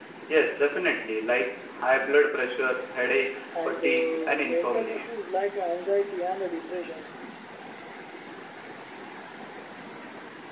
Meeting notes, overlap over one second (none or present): present